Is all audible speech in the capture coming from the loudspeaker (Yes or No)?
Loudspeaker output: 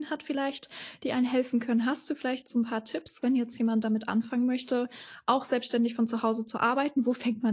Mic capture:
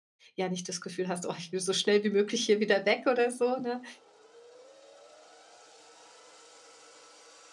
No